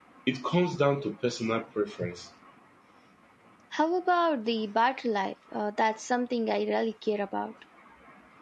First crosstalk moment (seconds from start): none

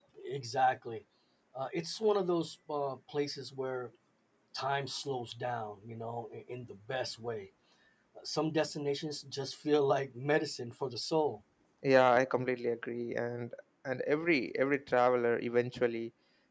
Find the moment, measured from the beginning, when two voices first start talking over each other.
none

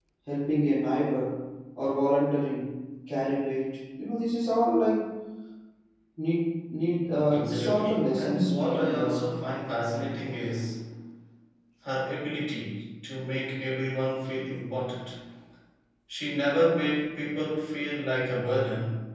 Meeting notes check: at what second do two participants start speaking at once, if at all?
7.3 s

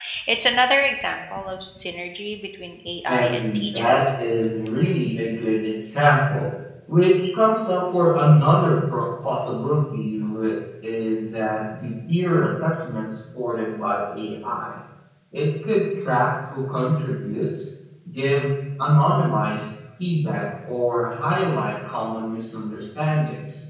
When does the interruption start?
3.1 s

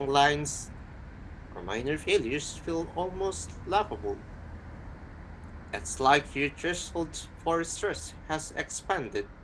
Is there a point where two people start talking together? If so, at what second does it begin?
none

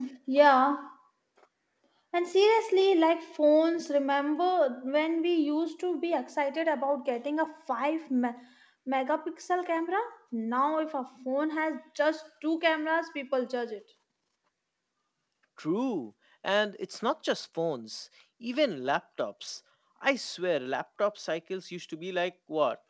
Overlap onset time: none

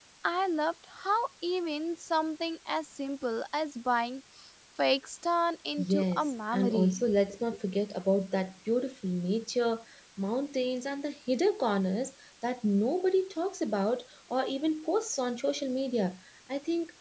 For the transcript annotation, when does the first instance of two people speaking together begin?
5.8 s

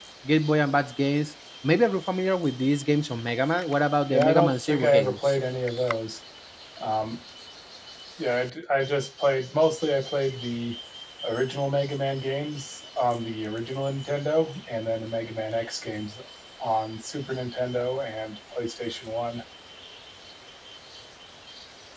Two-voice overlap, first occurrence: 4.1 s

